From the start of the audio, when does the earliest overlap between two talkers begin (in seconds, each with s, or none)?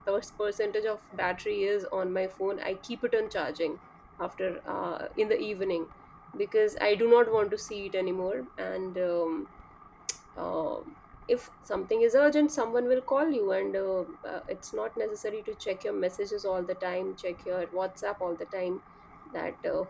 none